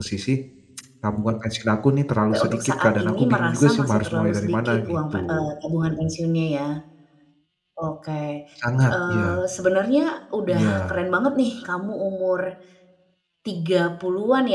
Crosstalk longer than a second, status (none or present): present